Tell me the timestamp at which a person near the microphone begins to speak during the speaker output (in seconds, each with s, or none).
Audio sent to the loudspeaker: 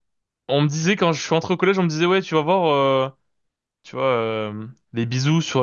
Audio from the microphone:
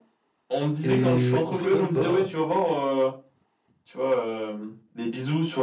0.8 s